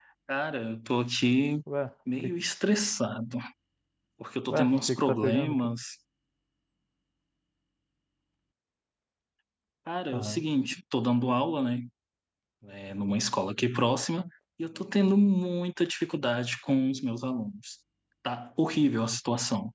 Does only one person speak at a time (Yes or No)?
No